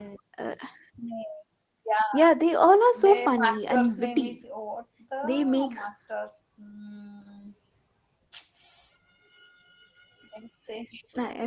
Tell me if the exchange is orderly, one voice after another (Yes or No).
No